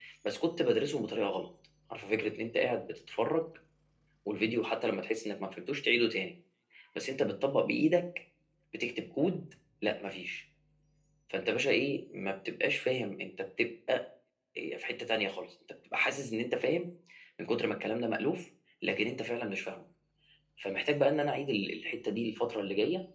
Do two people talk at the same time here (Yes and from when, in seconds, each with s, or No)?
No